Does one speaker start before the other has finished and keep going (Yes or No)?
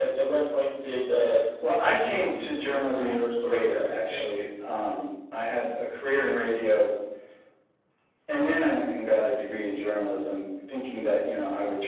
Yes